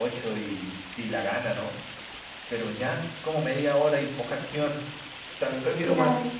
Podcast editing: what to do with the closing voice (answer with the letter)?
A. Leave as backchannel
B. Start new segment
A